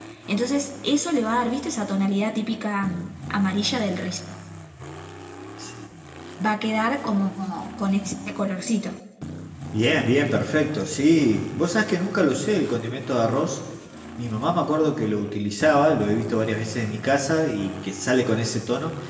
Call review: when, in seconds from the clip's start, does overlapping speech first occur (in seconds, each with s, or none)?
none